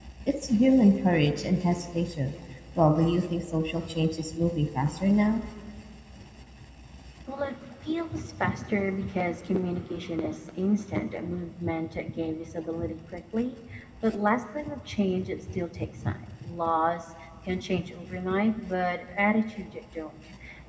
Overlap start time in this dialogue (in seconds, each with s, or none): none